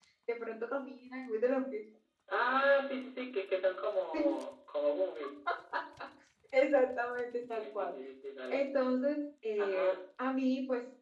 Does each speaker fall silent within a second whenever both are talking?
Yes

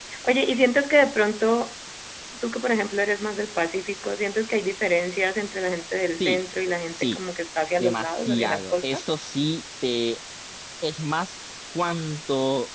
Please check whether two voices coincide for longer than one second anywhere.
Yes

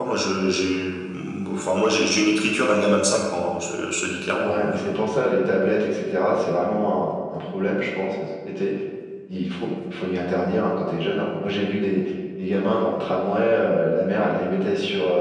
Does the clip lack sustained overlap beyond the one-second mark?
Yes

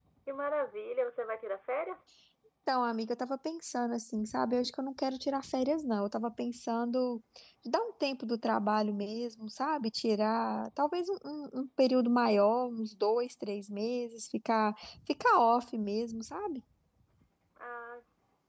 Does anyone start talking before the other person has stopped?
No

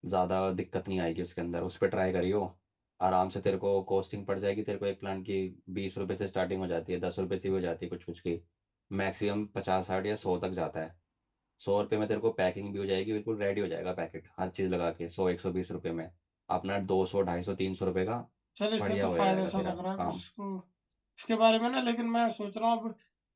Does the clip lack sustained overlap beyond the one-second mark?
No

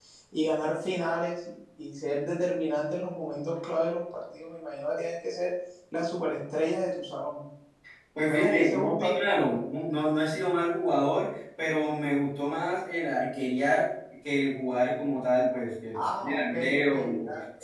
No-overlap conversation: No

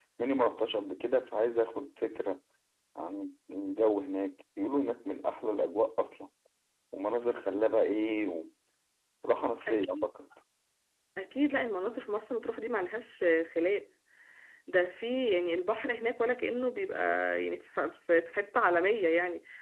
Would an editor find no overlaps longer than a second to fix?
Yes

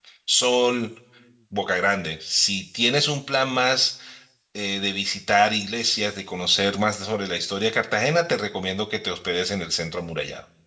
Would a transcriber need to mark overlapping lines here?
No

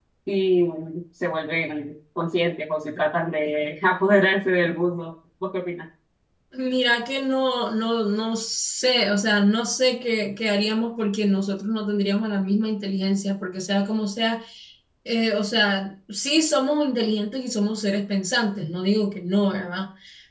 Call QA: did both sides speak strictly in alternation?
Yes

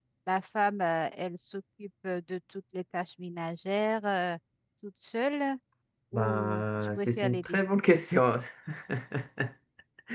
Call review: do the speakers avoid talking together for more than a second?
No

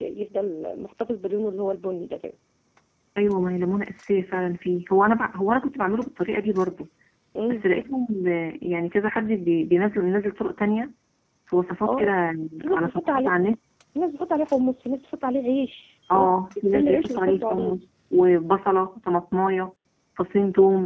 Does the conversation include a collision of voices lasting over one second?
Yes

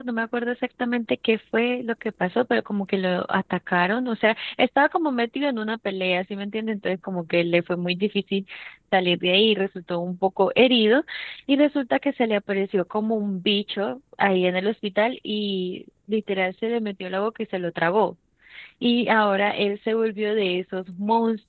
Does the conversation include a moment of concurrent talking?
No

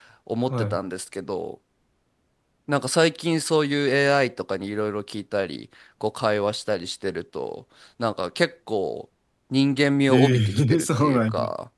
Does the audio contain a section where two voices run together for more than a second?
Yes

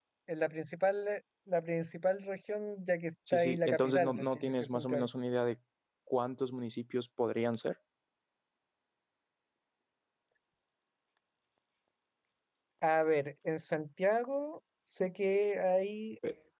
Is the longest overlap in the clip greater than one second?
Yes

